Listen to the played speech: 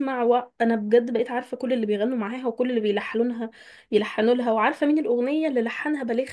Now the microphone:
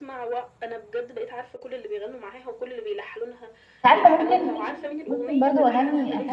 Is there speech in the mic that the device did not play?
Yes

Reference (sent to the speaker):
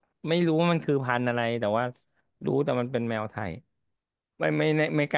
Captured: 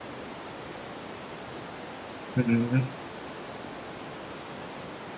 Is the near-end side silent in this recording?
No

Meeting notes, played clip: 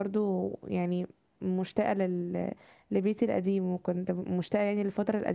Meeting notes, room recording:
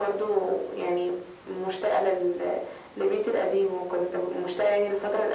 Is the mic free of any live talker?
Yes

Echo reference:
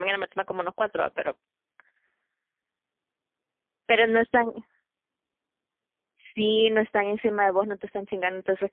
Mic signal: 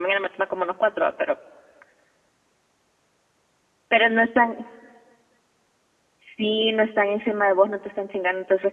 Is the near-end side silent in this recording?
Yes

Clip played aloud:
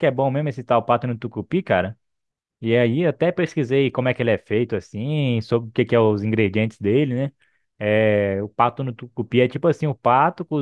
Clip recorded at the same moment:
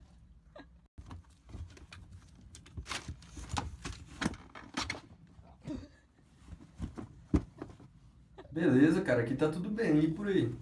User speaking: Yes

